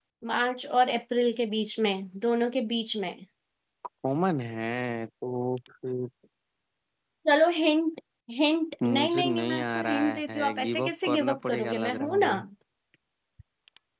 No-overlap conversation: No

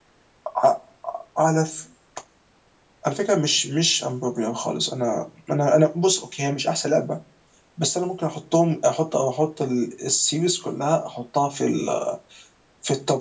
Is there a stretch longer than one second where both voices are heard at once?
No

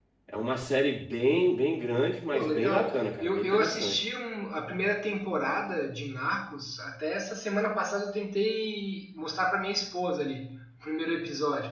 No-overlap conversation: No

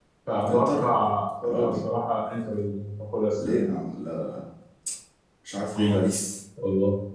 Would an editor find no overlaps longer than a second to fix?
Yes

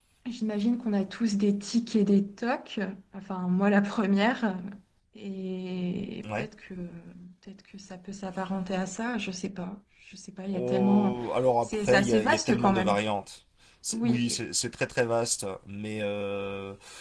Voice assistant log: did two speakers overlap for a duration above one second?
Yes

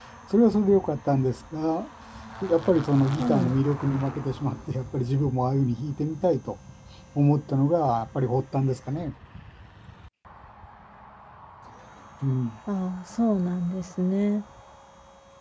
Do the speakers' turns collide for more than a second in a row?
No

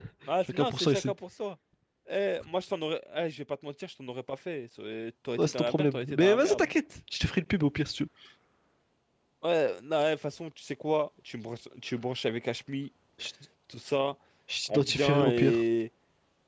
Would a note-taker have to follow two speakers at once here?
Yes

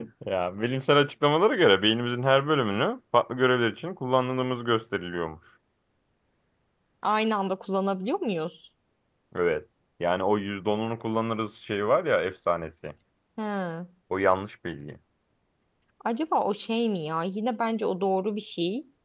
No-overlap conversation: Yes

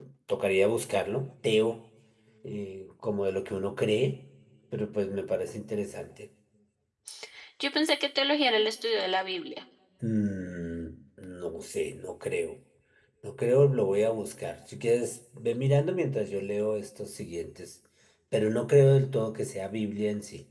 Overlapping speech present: No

